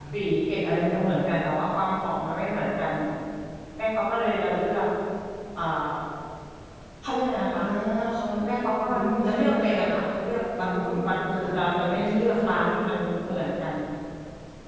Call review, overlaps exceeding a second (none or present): present